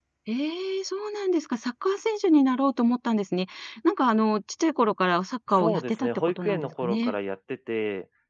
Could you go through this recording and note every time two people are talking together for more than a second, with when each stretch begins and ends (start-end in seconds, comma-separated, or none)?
5.5-7.2